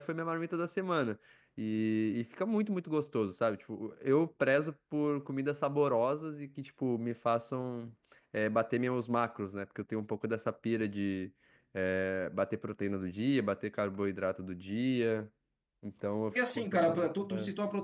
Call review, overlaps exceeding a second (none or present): present